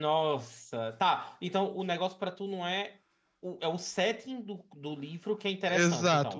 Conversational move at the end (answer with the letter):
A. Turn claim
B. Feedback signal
A